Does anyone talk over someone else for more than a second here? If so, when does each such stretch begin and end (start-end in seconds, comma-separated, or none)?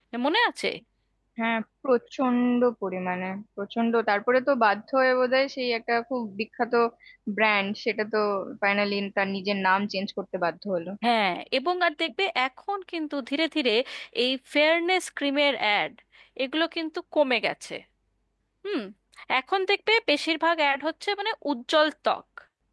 none